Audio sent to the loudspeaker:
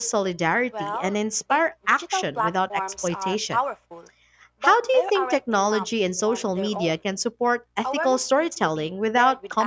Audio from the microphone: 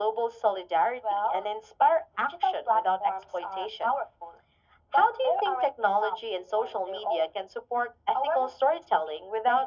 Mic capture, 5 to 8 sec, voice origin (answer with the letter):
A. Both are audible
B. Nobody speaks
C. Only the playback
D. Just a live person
C